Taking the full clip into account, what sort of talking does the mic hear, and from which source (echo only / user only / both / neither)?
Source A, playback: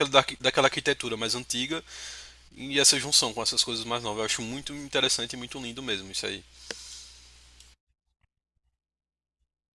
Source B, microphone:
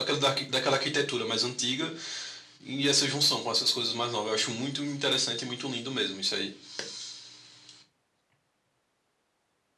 echo only